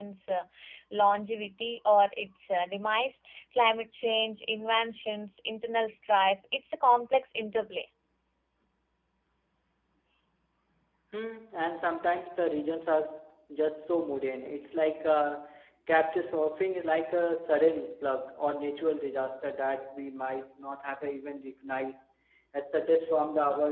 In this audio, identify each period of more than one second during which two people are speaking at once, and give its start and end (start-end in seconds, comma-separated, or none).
none